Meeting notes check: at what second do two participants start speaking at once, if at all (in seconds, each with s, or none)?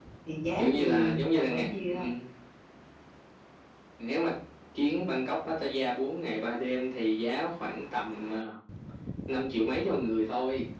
0.5 s